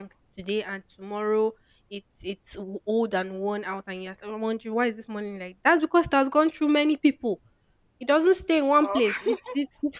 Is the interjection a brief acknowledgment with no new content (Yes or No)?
Yes